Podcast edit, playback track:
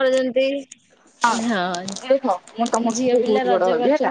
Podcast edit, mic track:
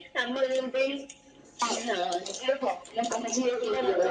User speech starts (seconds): none

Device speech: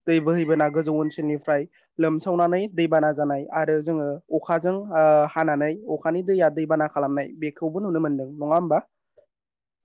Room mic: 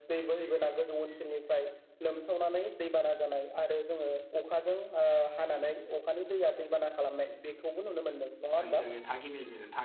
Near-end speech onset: 8.6 s

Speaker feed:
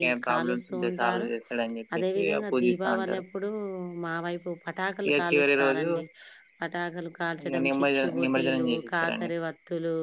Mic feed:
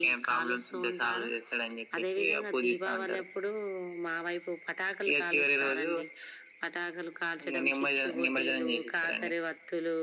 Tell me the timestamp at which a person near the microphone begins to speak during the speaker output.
none

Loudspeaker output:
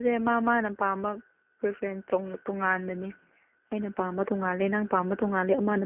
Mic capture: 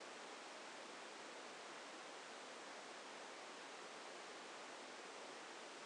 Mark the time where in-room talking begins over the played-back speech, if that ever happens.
none

